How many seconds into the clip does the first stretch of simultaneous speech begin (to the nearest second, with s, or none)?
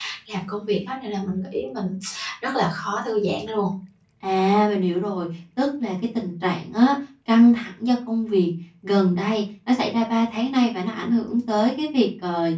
none